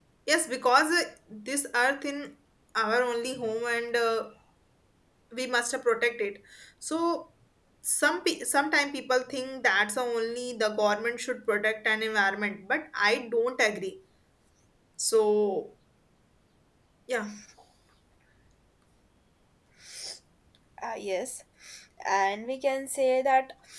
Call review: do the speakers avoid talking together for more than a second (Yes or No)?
Yes